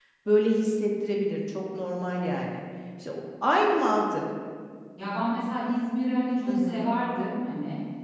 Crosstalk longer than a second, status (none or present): none